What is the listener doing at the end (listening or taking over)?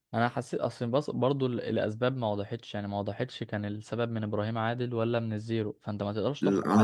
taking over